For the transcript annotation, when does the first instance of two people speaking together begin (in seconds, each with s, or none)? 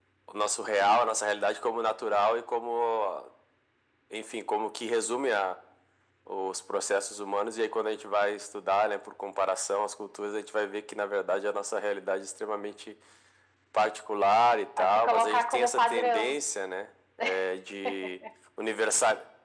14.8 s